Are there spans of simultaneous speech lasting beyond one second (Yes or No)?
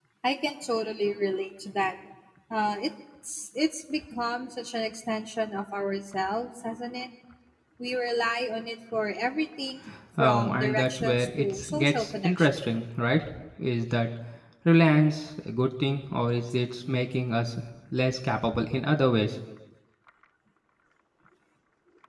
Yes